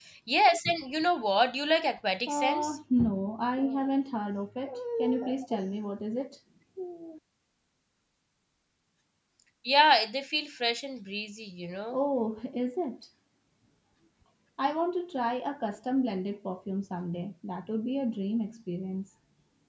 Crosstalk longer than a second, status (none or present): none